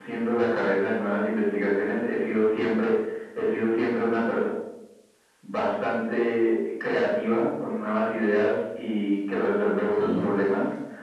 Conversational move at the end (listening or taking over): listening